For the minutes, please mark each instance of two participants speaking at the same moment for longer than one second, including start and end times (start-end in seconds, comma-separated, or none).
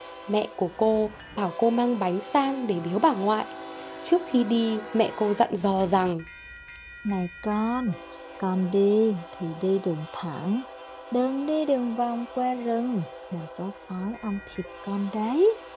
none